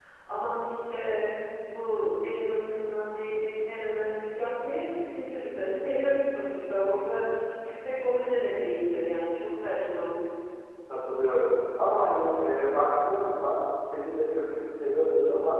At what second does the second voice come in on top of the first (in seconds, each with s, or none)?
none